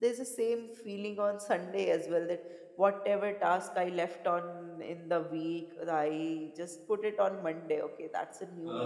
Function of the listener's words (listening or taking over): listening